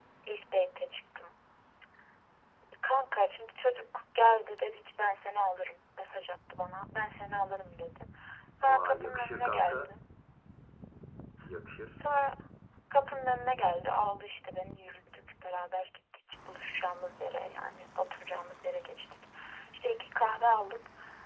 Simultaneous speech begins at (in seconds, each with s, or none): 8.7 s